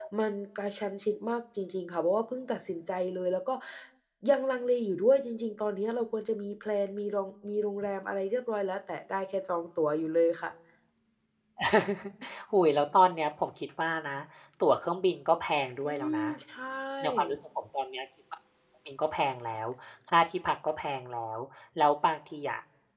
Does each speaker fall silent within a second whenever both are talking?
Yes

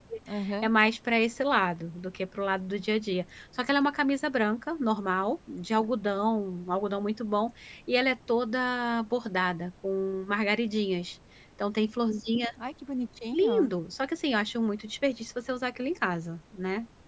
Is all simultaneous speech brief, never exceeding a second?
Yes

